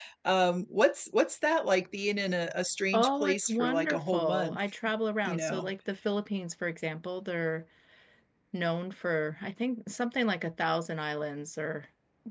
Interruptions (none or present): present